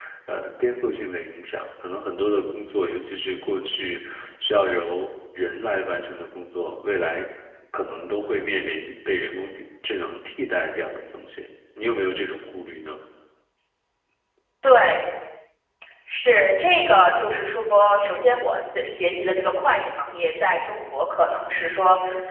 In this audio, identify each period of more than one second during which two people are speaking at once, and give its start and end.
none

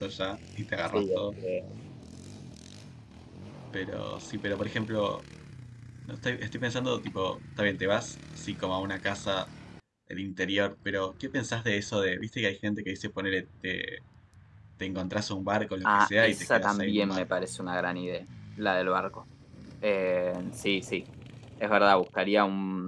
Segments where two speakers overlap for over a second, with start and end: 15.8-17.2

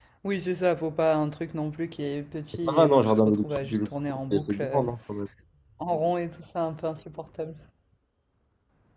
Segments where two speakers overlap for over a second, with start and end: 2.6-4.8

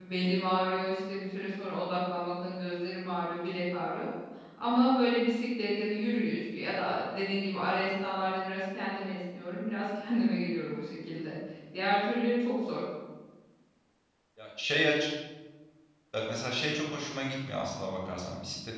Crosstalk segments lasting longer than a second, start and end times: none

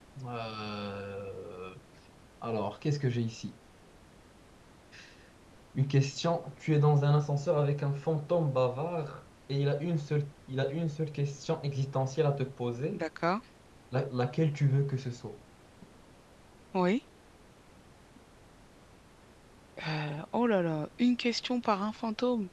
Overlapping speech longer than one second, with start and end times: none

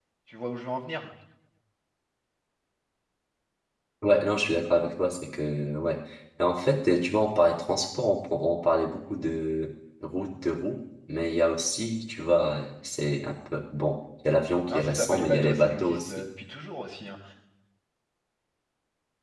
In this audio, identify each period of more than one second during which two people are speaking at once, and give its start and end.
14.7-16.3

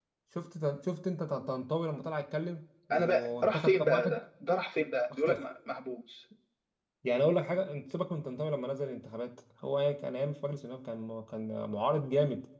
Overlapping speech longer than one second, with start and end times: 2.9-4.2

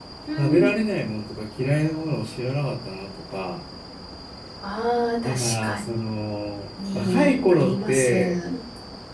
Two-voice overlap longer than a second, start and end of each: 6.9-8.4

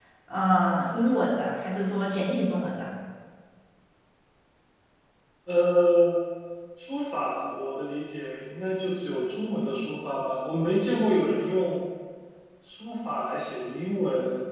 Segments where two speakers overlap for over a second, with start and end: none

